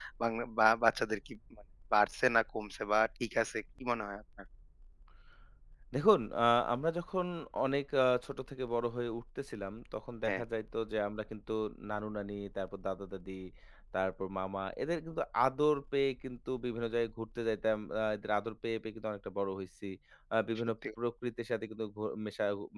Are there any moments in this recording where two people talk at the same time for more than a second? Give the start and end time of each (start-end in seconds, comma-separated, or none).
none